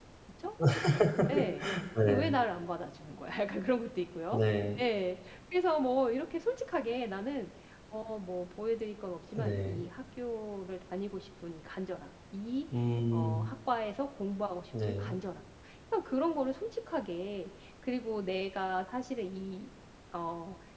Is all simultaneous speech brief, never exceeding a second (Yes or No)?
Yes